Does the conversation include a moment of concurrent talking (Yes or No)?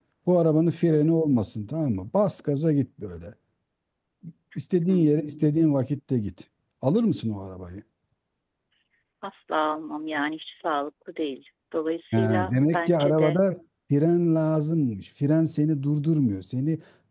Yes